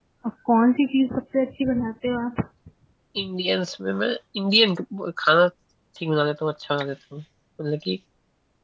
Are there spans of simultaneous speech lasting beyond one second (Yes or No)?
No